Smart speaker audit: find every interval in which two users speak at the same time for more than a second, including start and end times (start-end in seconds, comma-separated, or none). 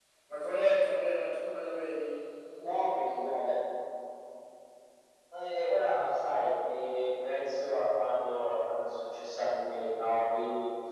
none